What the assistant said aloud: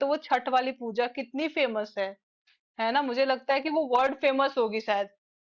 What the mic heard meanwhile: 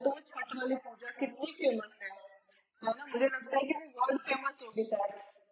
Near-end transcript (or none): none